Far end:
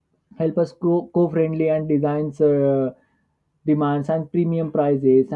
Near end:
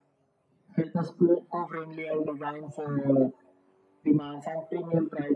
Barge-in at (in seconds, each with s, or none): none